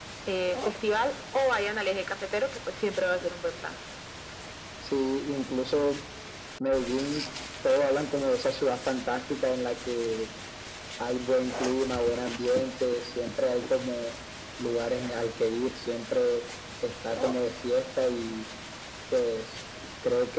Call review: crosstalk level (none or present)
none